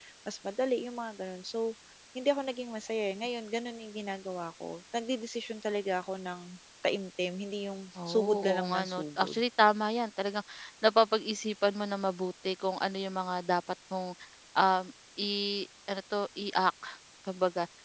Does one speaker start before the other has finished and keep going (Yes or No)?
Yes